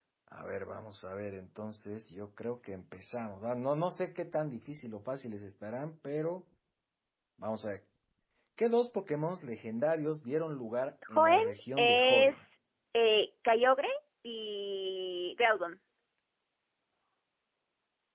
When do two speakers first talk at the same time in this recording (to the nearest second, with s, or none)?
11 s